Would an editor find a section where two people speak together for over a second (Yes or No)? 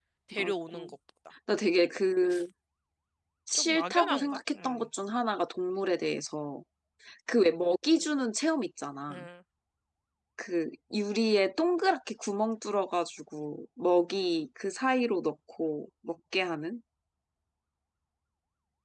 Yes